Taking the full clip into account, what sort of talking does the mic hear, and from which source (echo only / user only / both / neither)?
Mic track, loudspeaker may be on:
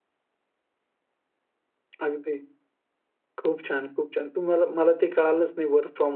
user only